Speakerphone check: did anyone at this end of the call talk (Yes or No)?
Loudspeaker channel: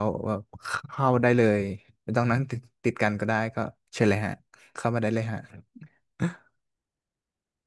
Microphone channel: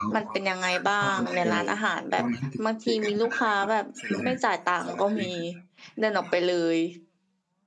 Yes